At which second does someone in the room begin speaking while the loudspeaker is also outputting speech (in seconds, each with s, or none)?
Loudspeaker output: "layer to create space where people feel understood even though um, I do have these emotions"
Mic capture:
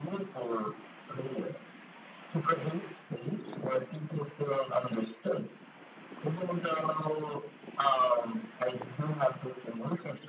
none